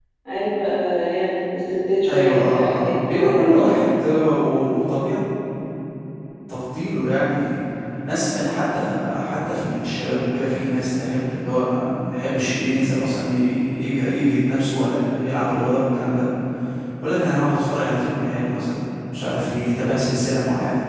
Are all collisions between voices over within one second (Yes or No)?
No